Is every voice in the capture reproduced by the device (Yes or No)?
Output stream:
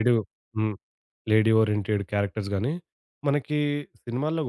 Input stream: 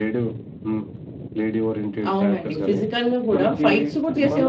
No